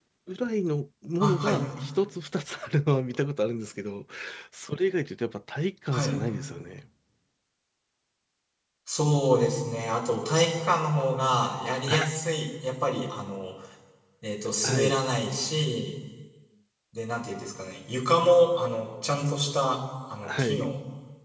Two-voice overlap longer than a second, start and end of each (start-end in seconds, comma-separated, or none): none